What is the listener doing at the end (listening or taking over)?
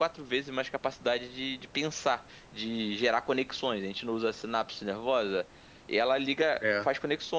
listening